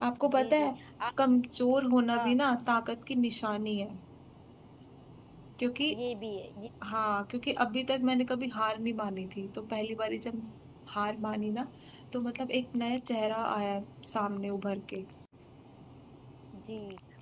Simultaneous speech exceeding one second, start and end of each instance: none

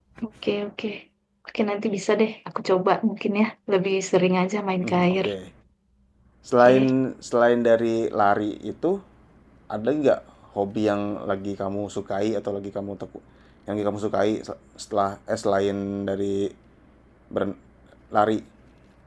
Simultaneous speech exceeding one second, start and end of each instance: none

